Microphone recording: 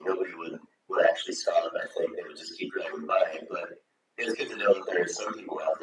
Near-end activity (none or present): none